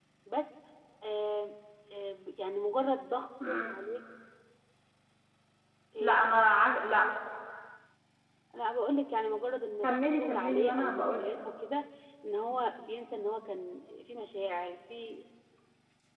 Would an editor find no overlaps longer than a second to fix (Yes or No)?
No